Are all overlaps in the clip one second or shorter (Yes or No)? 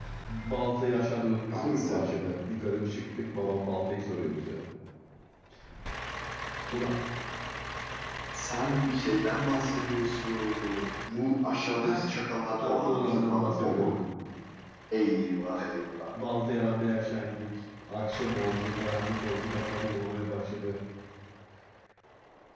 No